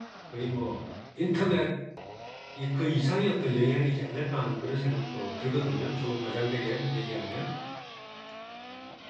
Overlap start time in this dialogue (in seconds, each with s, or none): none